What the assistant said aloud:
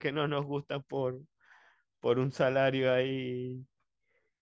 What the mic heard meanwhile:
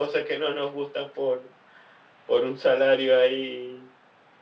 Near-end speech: none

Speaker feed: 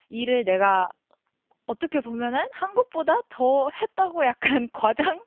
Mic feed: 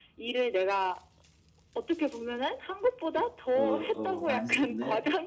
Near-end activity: present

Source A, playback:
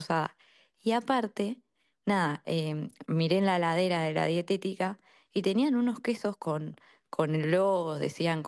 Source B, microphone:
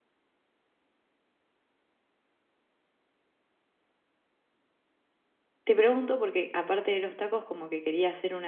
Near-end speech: present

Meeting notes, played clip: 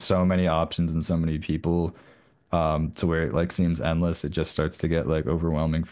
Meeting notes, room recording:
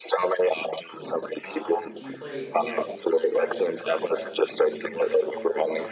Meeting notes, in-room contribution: present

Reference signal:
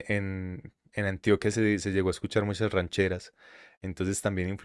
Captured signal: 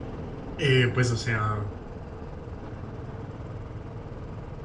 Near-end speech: present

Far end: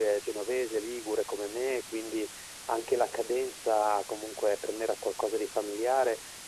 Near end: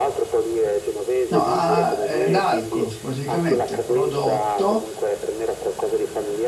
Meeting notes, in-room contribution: present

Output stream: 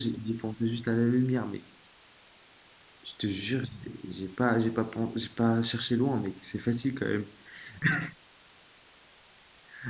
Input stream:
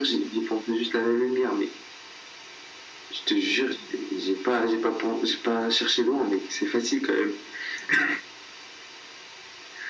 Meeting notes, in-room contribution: none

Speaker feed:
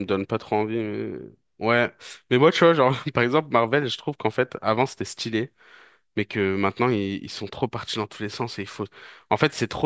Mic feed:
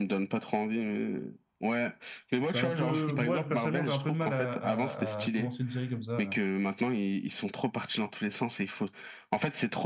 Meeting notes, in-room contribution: present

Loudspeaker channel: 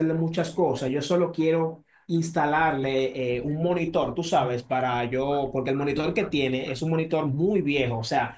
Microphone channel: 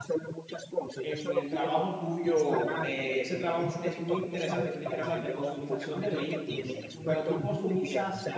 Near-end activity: present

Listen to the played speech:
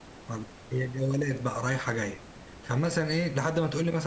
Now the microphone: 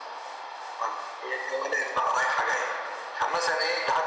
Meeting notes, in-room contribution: none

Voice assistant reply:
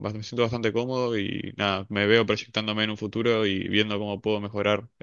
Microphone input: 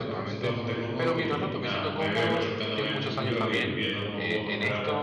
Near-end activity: present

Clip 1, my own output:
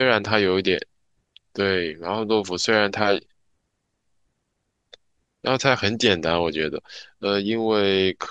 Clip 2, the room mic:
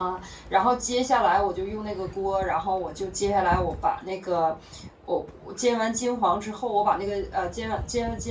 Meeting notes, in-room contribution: present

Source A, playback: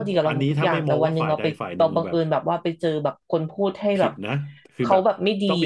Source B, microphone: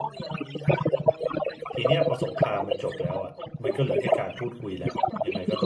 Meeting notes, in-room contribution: present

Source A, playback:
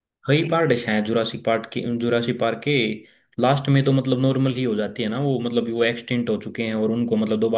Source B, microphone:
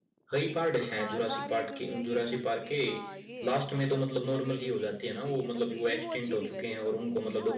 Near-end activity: present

